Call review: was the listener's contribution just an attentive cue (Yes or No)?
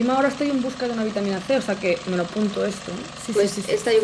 No